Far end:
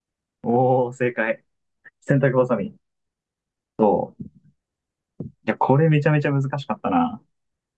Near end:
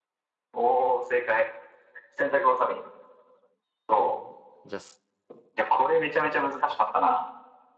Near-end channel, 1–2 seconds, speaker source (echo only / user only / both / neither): echo only